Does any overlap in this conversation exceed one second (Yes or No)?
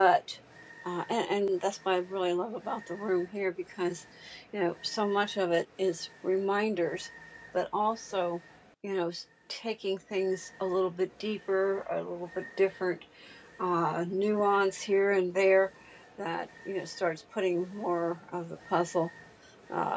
No